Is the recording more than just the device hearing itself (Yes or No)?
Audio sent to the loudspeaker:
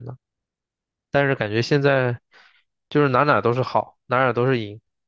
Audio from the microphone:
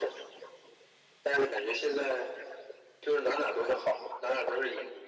No